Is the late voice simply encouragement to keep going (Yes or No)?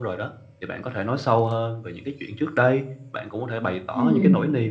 Yes